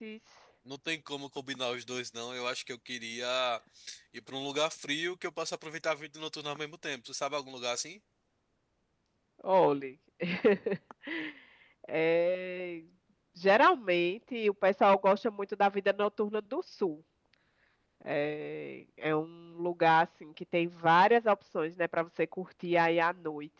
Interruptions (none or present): none